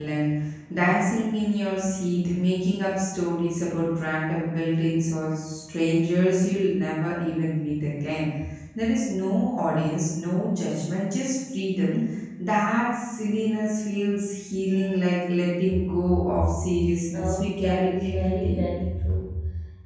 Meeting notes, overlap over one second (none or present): present